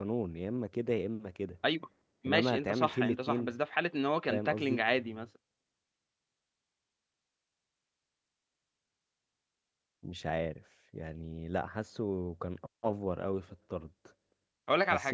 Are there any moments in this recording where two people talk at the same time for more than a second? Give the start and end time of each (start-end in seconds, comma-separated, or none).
2.3-3.5